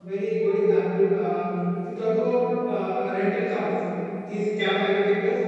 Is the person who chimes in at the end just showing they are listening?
Yes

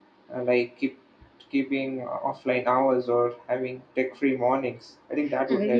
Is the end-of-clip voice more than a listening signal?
Yes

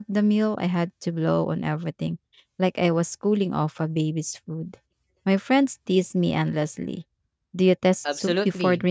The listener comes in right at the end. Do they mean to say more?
Yes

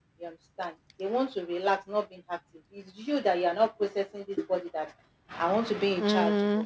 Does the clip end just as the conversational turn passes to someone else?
No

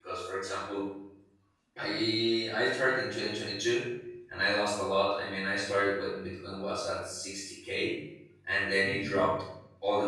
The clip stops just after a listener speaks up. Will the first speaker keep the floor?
Yes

